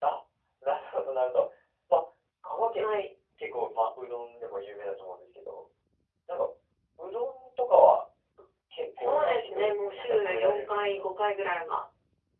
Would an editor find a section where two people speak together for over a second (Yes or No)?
Yes